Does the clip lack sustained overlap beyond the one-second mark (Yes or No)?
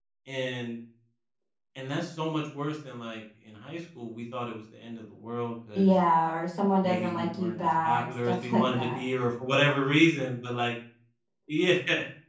No